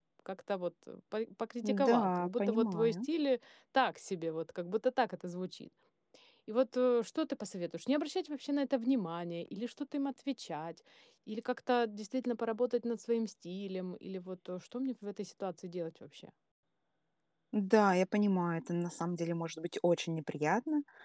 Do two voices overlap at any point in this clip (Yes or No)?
Yes